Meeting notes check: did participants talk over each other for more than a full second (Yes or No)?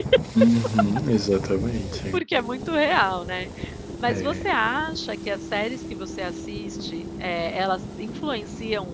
No